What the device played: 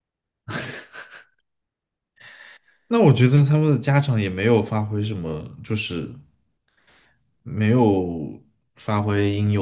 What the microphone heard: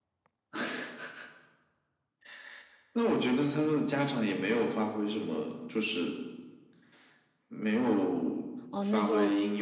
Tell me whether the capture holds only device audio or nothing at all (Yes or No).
No